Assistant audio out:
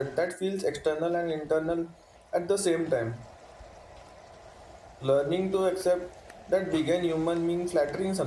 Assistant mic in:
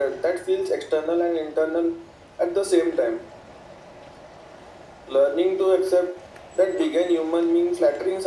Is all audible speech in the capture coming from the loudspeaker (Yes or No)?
Yes